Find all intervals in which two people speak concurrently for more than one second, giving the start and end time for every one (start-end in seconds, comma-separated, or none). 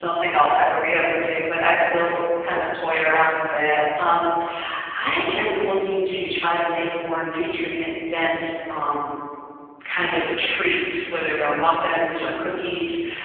none